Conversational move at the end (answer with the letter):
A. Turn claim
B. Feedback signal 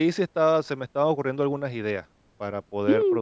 A